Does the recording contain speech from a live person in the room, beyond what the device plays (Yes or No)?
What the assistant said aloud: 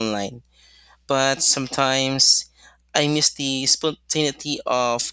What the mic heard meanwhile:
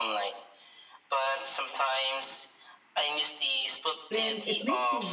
Yes